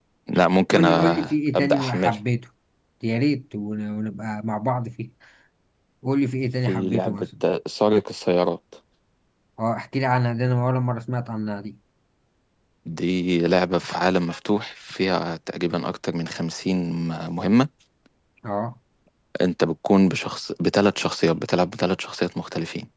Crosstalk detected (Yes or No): Yes